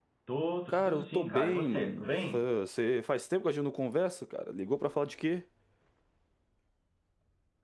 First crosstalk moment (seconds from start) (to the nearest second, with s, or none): 1 s